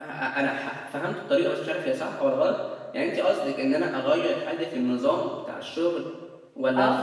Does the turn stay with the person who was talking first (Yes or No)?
No